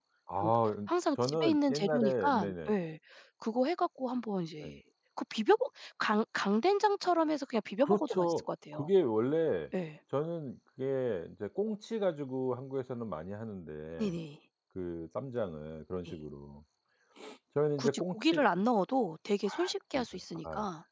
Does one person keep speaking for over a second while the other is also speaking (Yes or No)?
Yes